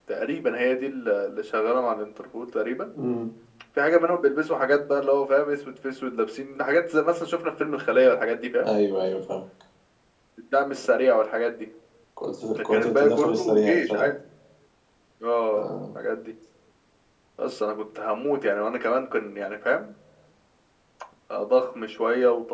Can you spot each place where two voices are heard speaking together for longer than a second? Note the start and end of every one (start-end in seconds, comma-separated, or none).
12.6-14.1